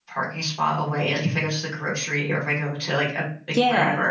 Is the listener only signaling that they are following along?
Yes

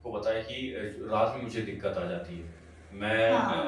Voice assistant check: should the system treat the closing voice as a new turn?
No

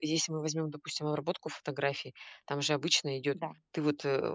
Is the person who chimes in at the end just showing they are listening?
Yes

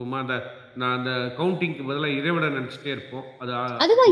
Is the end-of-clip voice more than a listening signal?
Yes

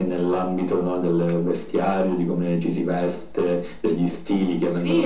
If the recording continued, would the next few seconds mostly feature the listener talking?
Yes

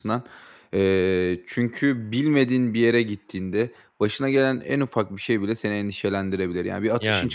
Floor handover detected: No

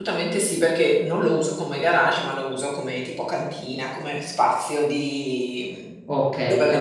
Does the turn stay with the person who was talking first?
No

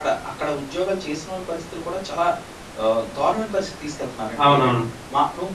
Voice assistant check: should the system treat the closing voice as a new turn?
No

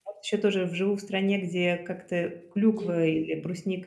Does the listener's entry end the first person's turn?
No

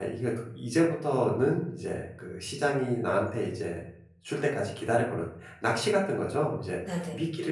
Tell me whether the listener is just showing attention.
Yes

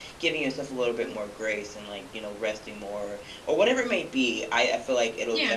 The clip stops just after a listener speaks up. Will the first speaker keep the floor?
Yes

